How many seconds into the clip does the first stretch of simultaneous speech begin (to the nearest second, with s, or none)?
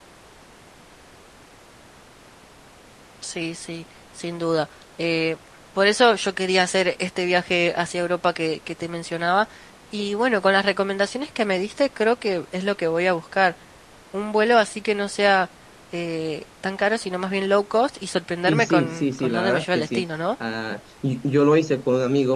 18 s